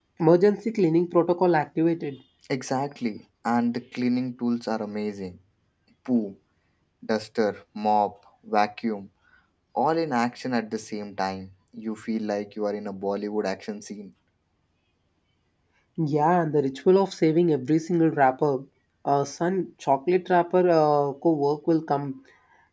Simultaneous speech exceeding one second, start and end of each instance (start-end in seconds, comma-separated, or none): none